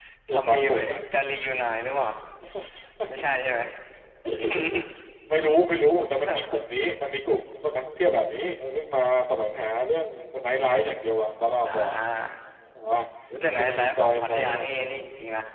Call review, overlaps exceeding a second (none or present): present